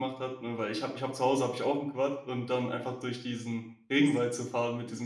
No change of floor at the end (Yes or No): Yes